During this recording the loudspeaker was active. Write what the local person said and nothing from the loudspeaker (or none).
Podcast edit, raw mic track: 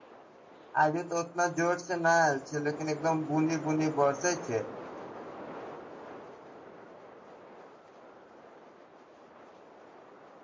आजू तऽ उतना जोर से न आयल छै लेकिन एकदम बुनी बुनी बरसे छै